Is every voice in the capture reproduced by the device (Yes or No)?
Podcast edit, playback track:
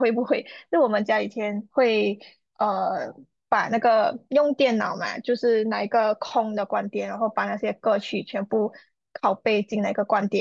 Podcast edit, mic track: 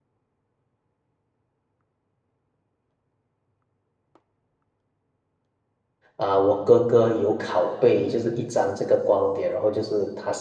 No